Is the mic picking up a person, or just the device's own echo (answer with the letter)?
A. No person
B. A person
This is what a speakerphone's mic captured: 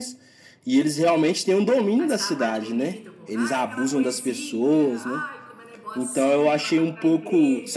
B